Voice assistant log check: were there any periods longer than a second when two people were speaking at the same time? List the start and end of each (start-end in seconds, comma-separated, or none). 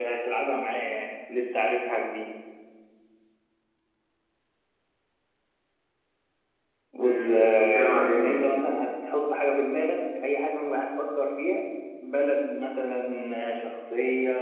7.0-8.4